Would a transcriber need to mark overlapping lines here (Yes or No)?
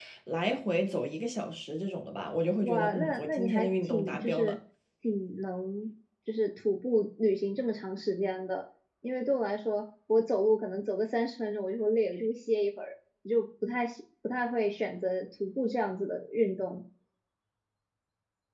Yes